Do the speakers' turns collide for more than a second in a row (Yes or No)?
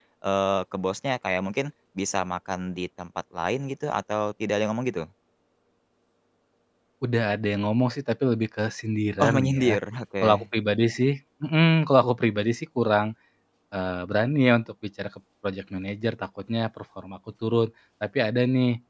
No